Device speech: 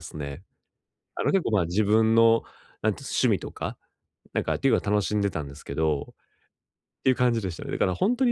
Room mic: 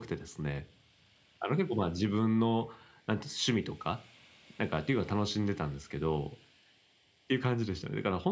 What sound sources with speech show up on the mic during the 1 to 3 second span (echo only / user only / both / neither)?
echo only